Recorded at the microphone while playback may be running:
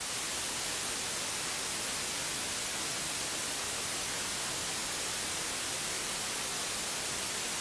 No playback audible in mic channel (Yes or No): Yes